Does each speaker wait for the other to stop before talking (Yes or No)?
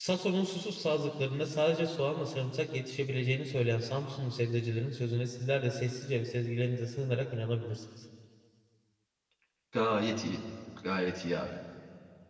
Yes